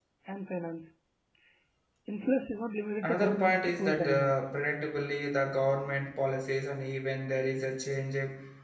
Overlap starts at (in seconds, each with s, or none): 3.0 s